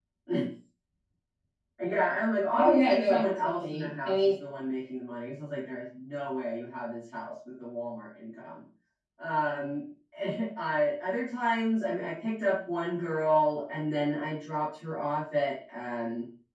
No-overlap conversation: No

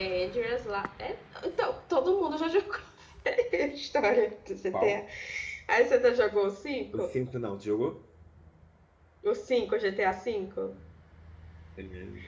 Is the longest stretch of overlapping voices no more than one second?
Yes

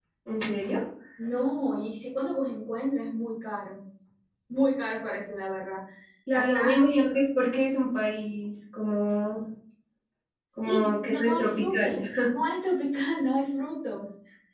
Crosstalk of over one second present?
Yes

